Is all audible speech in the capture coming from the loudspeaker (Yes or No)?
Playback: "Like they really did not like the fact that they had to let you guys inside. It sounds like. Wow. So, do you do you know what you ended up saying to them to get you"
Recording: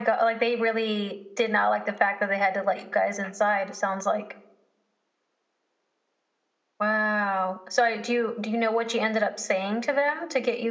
Yes